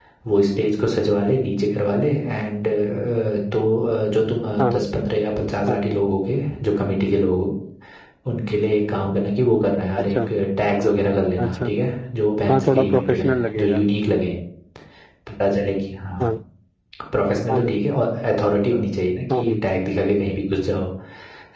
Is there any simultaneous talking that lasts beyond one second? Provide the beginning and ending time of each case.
12.5-13.8

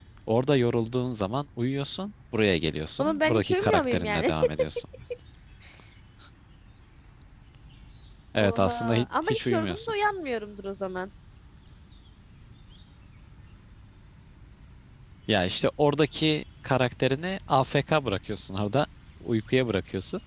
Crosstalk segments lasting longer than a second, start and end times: 3.0-4.3, 8.3-9.9

